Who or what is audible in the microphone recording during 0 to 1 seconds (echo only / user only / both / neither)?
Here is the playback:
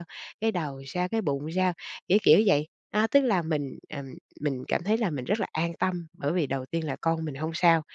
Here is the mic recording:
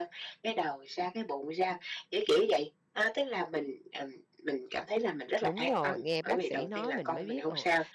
echo only